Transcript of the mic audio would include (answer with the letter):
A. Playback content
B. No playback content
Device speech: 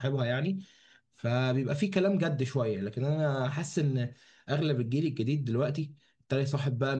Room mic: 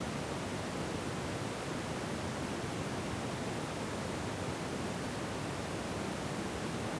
B